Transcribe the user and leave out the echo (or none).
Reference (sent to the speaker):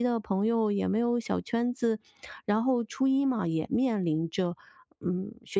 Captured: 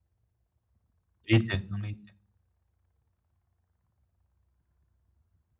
理解，能理解。